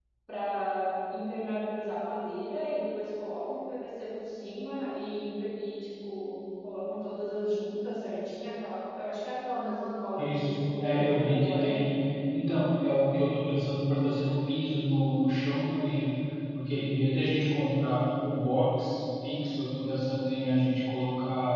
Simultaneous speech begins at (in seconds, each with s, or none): 10.2 s